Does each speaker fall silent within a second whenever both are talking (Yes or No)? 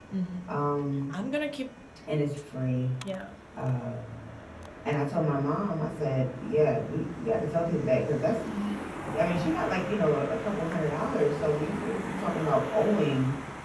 Yes